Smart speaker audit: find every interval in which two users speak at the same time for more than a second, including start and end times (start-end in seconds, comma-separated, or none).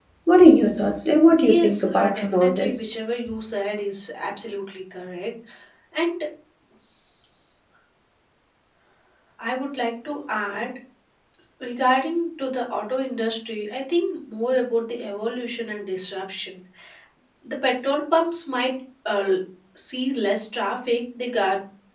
1.4-2.9